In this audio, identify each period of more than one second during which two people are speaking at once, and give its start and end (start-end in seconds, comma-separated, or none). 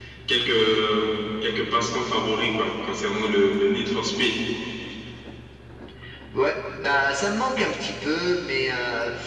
none